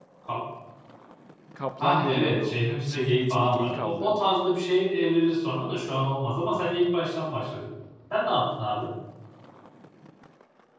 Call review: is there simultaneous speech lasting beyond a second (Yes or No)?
Yes